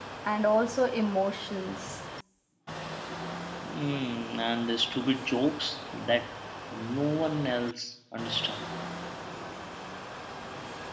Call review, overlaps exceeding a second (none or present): none